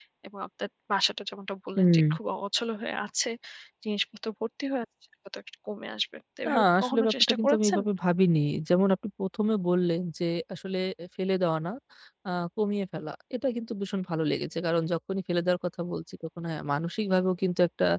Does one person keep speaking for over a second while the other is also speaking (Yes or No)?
Yes